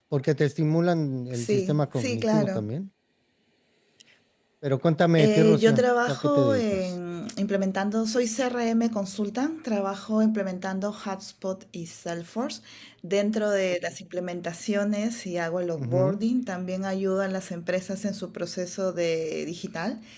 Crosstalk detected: Yes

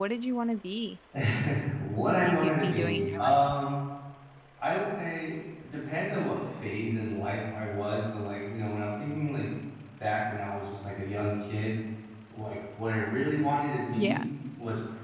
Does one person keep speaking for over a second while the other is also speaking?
Yes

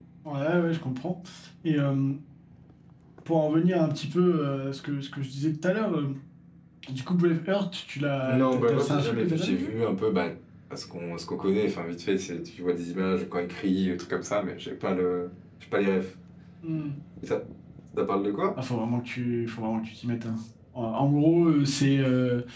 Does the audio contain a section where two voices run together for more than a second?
Yes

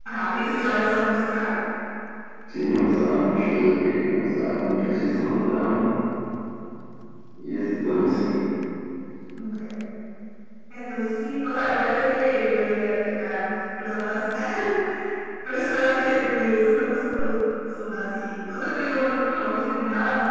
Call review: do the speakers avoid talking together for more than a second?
Yes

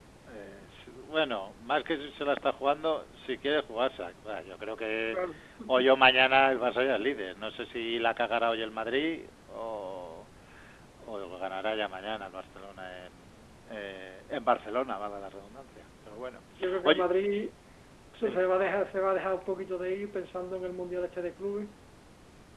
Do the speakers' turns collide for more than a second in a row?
No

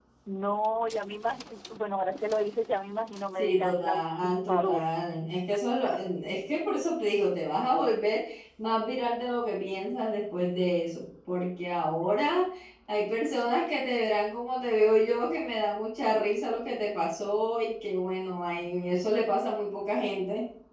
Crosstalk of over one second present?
Yes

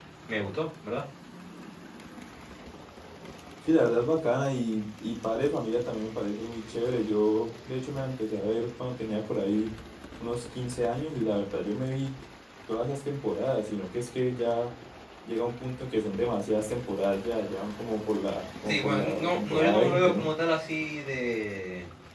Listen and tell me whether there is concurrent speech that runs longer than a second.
Yes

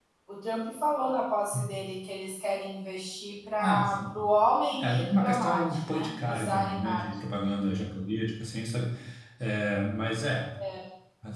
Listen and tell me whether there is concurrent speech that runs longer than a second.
Yes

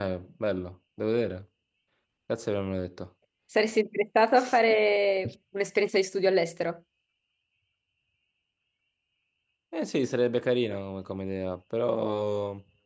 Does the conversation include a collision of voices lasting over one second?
No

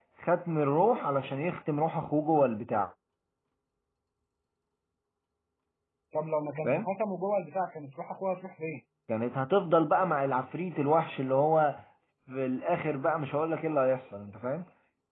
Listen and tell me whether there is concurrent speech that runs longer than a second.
No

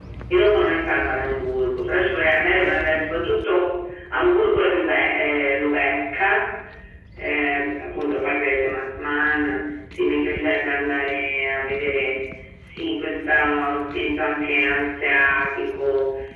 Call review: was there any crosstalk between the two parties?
No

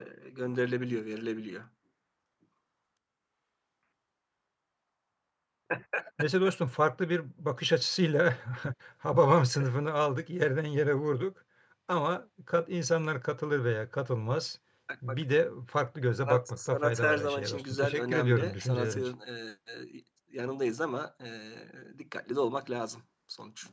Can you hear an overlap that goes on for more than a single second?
Yes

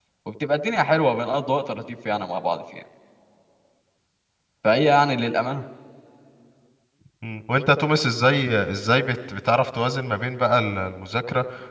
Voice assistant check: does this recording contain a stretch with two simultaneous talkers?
No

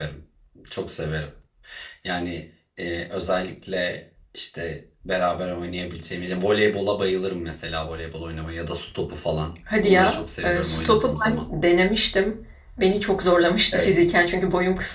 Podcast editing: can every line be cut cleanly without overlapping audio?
No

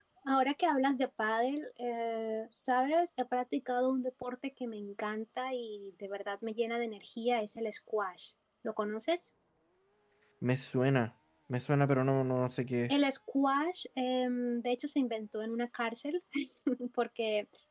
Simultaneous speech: No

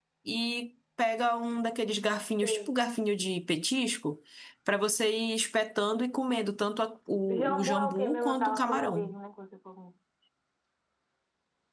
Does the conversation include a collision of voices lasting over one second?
Yes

